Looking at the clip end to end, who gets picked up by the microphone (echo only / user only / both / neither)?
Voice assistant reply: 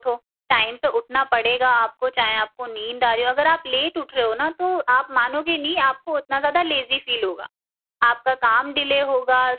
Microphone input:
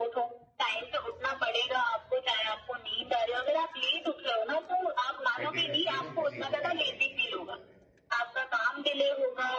both